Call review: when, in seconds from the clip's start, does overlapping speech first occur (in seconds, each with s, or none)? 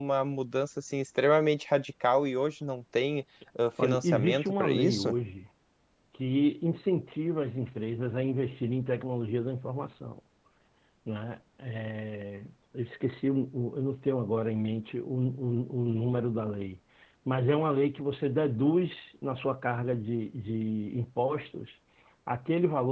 3.8 s